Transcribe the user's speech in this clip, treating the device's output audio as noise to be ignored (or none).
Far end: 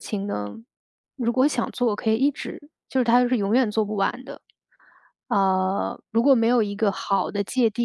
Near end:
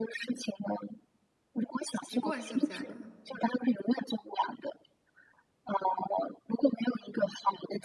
习惯性加班。